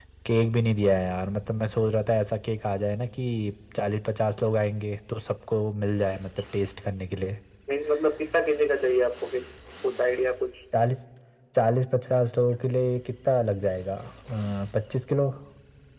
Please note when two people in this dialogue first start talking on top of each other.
none

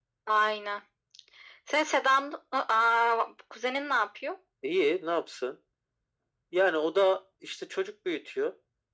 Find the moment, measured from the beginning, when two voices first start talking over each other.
none

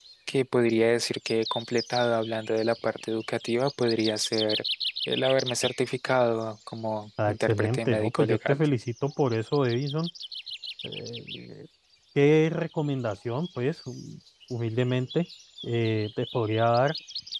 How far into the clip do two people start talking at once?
7.2 s

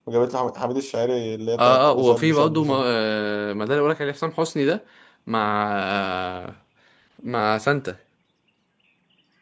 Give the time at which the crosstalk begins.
1.6 s

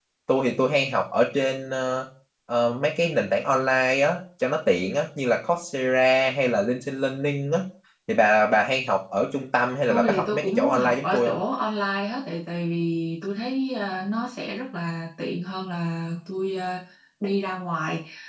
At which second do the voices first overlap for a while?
9.9 s

